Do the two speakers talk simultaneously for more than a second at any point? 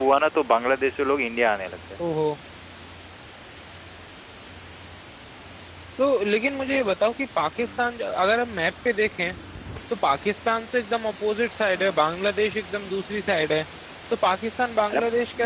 No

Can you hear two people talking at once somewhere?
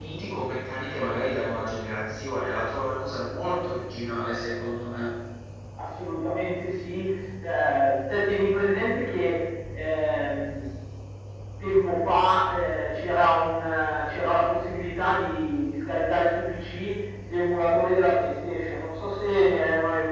No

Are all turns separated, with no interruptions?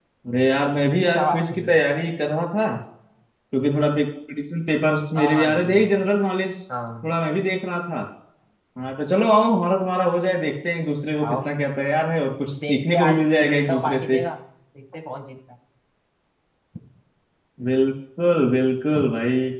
No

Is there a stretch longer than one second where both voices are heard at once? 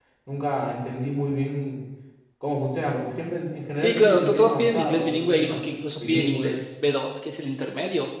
Yes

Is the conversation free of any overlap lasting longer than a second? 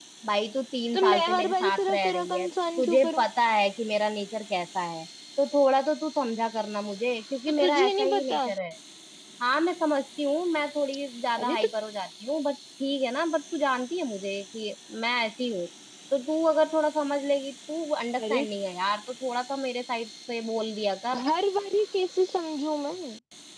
No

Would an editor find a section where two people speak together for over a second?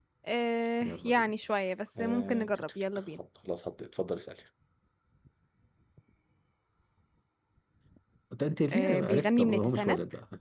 Yes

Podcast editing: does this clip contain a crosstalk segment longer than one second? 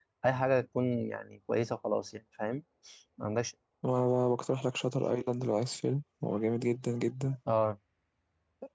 No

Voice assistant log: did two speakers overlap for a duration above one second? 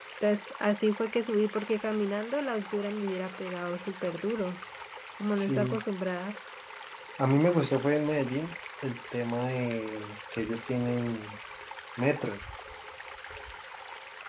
No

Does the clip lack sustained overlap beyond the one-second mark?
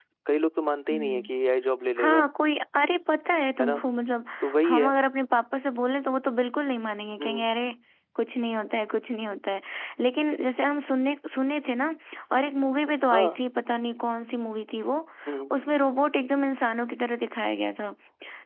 Yes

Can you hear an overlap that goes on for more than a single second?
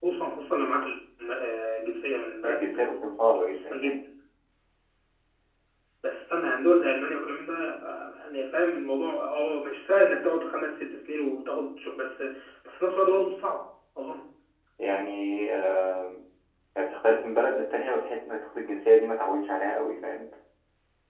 No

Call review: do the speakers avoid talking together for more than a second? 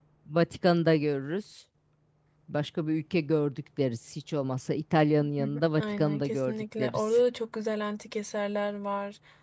No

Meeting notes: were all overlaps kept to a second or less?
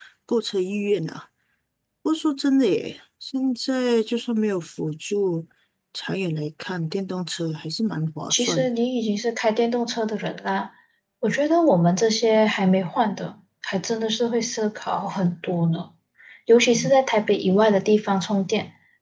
Yes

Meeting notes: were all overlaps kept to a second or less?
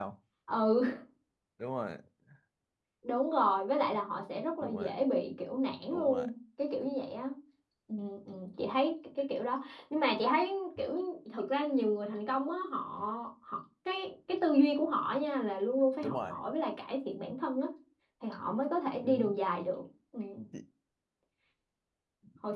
Yes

